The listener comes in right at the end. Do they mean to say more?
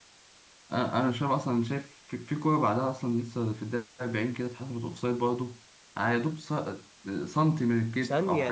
Yes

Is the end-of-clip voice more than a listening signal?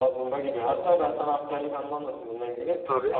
No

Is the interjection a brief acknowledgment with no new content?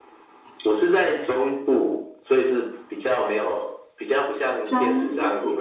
Yes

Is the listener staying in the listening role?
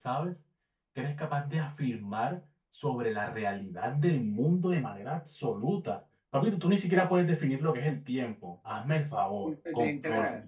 No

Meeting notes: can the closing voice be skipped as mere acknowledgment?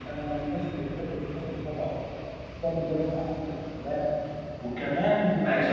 No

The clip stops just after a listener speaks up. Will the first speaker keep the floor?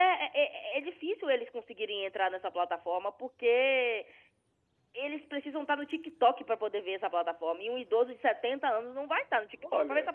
No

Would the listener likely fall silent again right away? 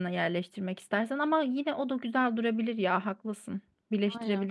No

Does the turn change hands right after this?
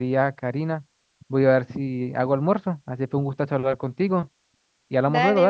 Yes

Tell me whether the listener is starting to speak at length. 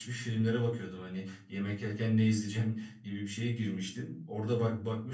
No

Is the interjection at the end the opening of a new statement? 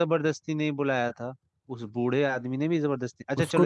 No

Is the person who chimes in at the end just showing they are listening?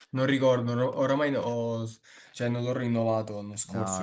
No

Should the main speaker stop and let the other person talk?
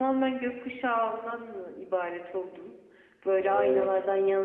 No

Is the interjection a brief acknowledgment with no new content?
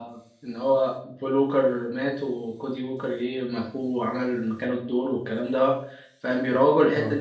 Yes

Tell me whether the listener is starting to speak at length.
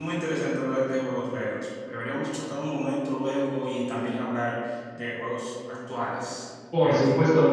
Yes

